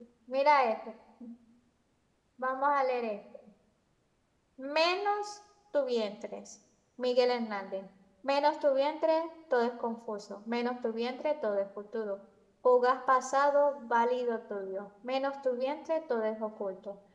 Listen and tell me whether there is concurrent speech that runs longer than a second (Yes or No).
No